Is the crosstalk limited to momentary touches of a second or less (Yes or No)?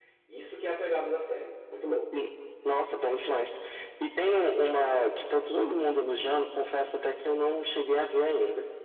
Yes